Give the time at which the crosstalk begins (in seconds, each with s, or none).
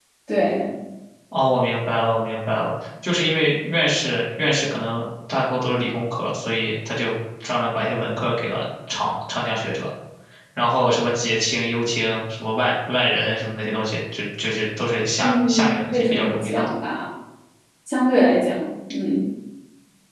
15.2 s